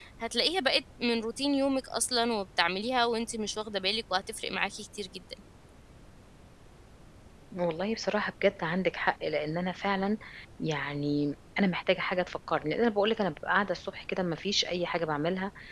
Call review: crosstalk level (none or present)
none